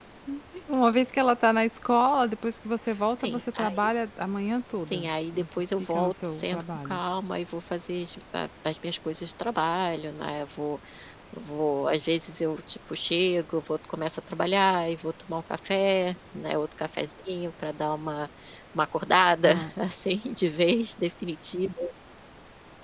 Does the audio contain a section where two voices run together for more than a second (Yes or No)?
Yes